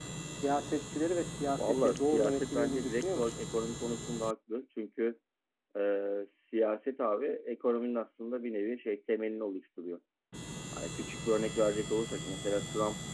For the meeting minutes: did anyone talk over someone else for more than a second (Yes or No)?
Yes